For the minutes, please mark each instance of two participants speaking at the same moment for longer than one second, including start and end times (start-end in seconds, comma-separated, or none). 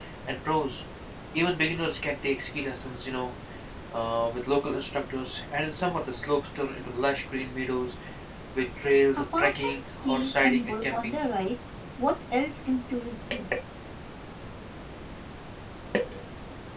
9.2-11.2